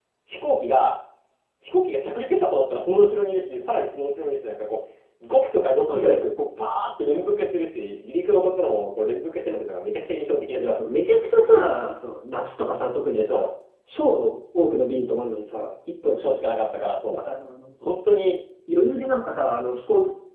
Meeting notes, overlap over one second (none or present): none